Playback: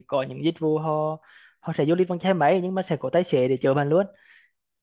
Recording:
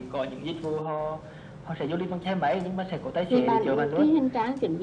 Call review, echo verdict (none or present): present